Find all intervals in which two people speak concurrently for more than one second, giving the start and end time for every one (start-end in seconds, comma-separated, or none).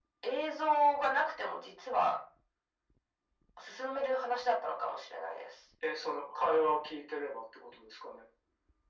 none